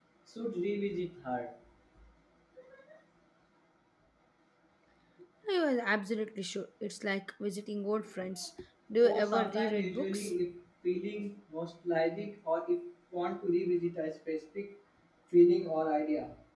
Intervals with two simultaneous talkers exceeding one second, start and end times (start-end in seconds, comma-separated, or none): 9.0-10.3